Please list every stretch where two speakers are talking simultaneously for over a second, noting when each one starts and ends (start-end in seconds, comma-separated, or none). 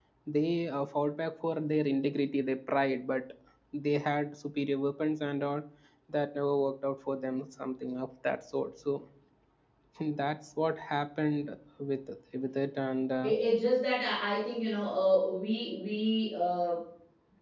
none